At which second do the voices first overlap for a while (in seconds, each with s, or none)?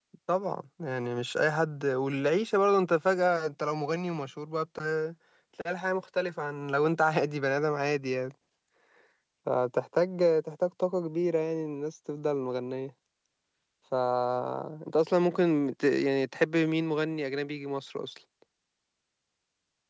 none